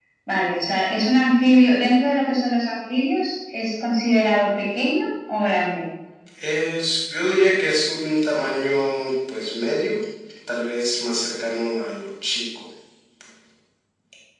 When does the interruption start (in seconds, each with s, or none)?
none